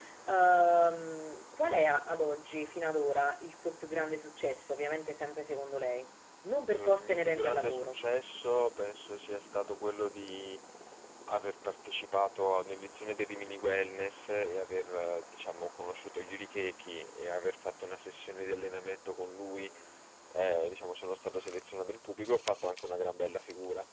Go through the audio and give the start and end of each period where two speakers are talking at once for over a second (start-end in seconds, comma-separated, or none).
6.7-8.0